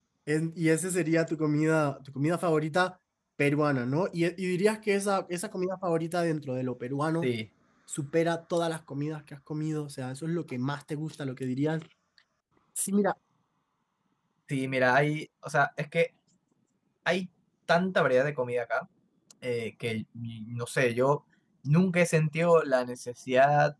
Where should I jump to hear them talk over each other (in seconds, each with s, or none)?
none